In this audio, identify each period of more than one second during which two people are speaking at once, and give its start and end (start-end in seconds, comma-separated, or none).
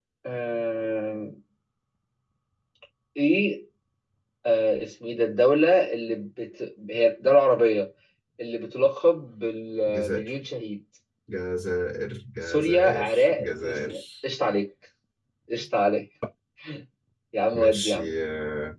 12.4-14.0